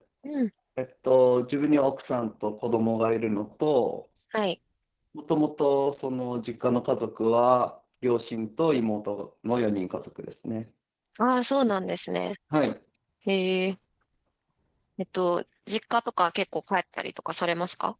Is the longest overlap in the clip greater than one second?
No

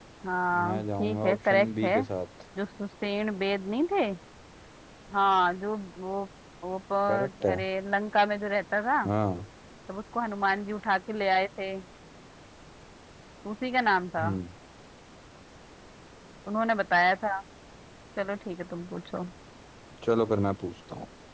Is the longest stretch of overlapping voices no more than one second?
No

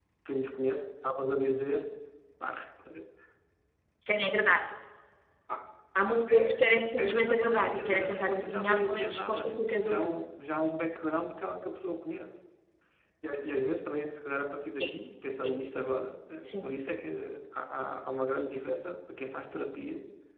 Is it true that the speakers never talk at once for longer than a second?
No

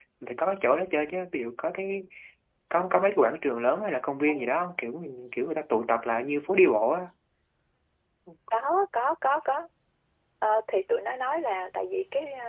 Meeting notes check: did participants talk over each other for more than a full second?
No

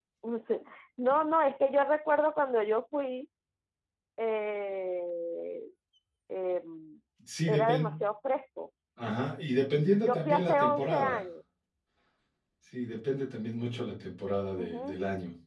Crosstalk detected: Yes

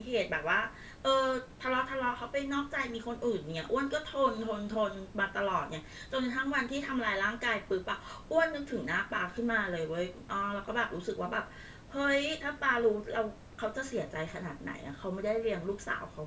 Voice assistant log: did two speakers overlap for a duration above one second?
No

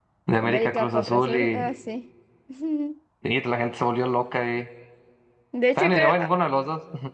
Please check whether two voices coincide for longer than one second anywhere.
Yes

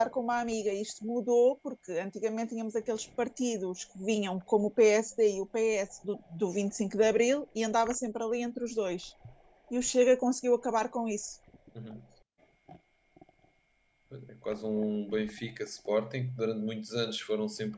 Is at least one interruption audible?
No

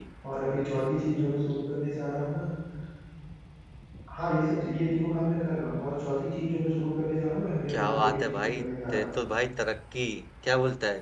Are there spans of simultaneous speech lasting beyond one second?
Yes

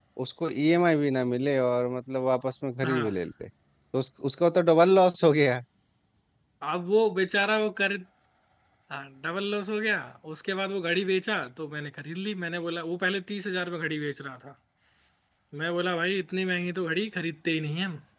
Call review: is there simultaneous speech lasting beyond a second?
No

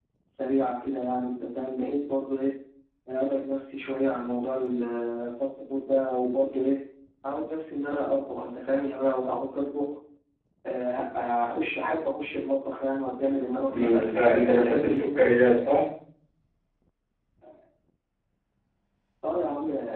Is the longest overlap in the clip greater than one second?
Yes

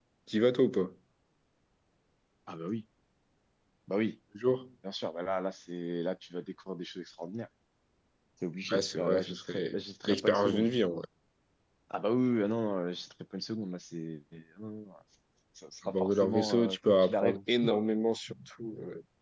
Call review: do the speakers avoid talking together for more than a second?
No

